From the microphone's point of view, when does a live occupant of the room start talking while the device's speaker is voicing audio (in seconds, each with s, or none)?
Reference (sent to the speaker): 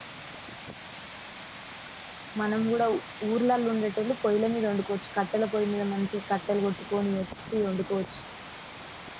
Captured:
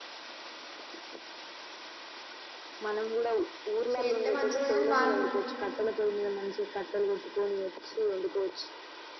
3.9 s